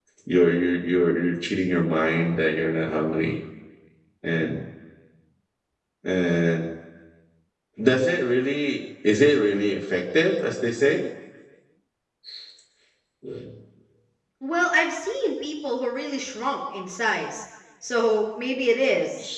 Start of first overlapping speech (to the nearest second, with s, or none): none